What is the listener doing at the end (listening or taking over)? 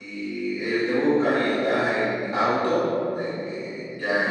listening